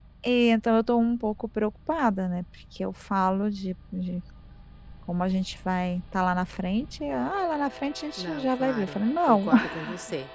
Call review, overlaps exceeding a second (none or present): present